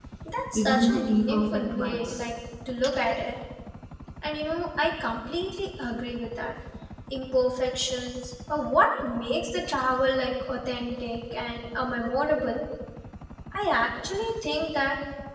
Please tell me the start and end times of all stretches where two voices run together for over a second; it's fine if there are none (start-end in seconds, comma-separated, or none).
0.6-2.3